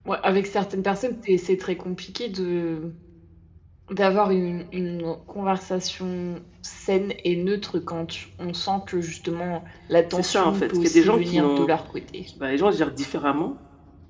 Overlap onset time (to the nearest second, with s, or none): 10 s